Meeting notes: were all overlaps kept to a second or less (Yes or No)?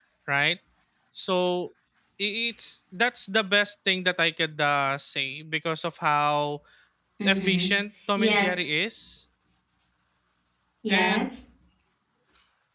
Yes